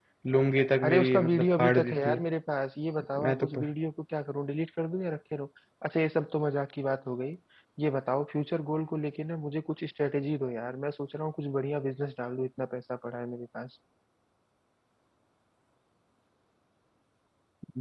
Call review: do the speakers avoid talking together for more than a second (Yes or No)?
No